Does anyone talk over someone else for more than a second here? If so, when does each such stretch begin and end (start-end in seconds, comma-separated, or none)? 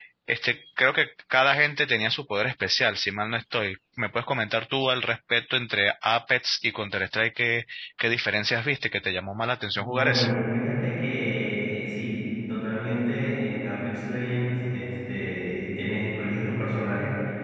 none